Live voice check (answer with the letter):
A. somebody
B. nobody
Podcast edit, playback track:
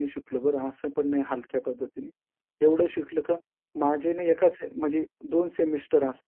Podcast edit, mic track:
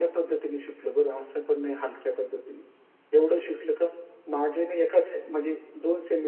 B